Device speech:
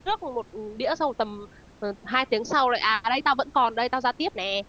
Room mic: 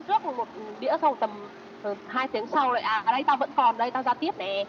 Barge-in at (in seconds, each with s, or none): none